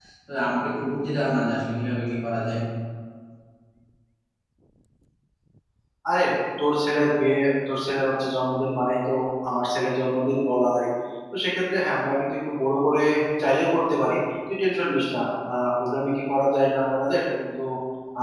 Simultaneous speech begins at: none

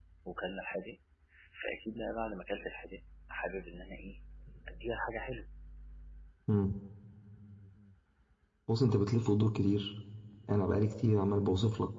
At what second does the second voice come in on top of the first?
none

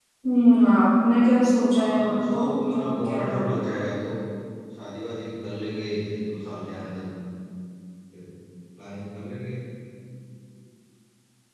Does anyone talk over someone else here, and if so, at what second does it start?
2 s

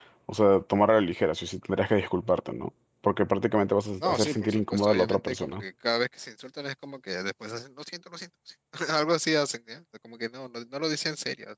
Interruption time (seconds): 4 s

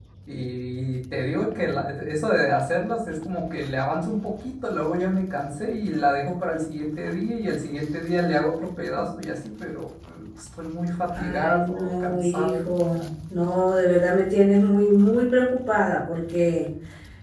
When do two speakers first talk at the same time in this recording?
11 s

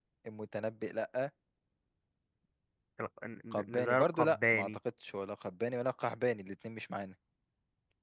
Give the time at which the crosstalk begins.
4 s

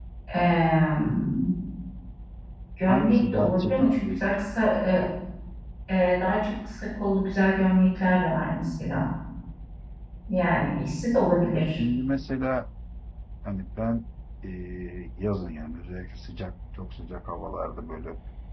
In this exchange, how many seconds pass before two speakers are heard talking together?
3 s

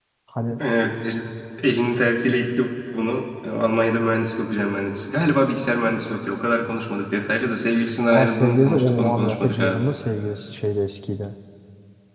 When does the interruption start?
8 s

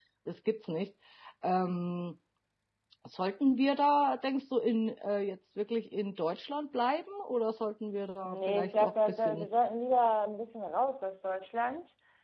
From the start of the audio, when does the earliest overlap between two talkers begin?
8 s

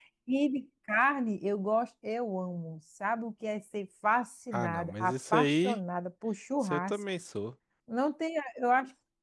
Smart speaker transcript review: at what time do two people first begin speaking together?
5 s

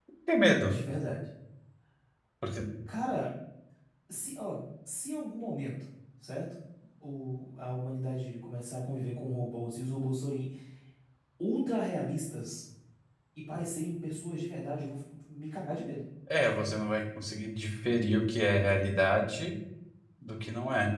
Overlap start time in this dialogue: none

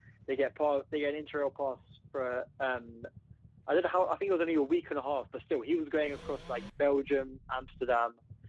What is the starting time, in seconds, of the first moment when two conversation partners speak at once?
none

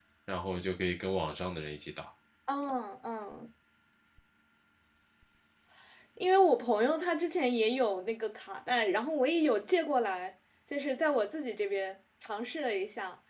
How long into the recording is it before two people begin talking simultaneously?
none

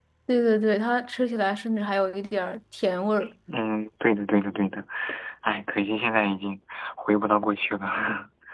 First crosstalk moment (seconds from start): none

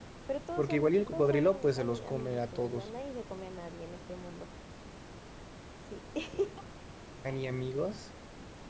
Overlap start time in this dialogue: 1 s

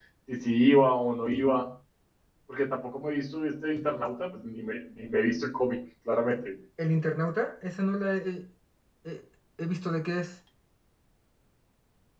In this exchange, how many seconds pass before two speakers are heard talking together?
none

